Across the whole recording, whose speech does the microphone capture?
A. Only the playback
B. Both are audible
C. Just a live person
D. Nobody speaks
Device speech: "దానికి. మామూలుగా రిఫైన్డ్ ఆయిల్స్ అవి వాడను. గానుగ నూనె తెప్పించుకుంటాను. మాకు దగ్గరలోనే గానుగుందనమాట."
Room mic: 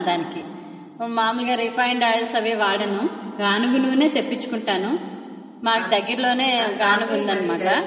B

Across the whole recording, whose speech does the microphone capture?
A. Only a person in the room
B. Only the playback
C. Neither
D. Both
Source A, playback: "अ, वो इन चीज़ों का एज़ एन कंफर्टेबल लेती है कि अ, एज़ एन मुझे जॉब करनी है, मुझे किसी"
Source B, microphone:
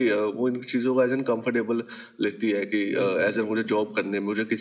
D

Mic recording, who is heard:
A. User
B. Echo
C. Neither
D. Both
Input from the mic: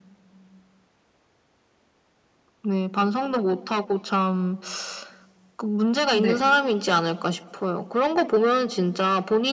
D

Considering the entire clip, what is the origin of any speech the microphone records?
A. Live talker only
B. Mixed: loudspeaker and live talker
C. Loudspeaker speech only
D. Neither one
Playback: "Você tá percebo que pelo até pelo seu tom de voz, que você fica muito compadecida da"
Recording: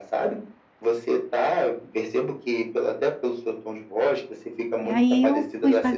B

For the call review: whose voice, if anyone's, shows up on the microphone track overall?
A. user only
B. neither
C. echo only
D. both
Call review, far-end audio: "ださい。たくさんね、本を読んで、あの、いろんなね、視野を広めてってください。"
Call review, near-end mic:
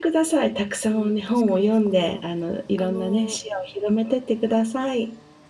D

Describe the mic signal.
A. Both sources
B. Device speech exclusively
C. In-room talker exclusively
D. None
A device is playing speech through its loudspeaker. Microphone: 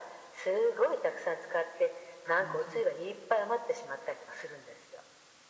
A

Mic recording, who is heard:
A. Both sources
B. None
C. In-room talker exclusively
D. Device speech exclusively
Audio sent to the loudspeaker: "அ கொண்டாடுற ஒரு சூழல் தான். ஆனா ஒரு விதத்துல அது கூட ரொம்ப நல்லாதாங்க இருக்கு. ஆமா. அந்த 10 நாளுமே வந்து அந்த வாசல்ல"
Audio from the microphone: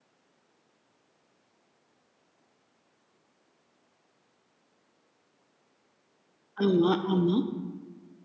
C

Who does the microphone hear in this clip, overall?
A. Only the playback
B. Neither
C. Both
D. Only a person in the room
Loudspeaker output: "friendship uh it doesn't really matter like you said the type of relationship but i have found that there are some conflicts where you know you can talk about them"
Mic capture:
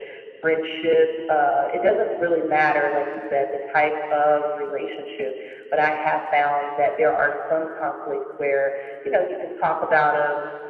A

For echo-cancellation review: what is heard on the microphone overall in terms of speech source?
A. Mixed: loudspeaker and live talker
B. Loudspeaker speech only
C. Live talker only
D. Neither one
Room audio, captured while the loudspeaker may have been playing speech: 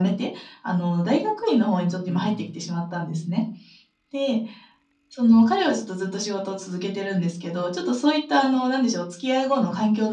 A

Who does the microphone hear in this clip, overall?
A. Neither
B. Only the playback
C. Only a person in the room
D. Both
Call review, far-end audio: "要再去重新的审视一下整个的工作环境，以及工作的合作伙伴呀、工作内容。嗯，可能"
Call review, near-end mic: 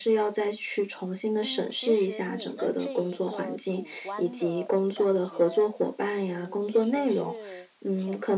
D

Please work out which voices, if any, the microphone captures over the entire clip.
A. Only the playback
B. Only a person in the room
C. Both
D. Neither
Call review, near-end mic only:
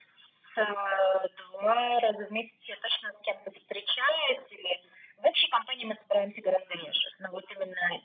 A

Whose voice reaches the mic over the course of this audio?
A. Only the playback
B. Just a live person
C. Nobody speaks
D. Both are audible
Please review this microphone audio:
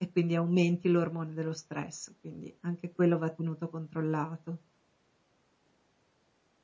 B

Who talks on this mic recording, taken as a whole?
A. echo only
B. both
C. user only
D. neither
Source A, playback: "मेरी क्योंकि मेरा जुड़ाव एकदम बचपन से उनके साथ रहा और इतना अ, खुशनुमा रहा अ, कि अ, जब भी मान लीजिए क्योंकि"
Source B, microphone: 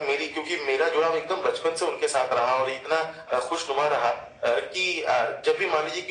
A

